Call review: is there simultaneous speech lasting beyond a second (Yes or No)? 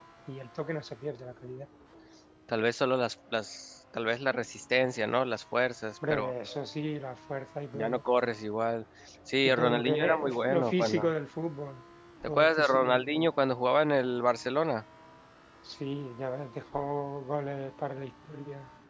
Yes